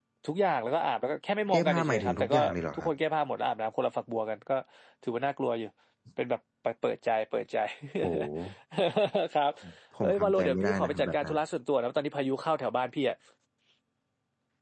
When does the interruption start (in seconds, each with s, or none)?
1.5 s